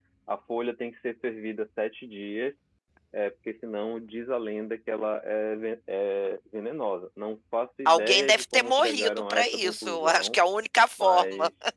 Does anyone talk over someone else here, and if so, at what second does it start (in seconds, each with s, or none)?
7.8 s